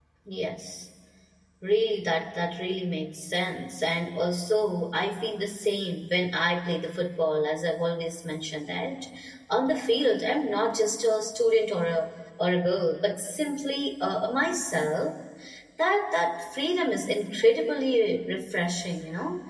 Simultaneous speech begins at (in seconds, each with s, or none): none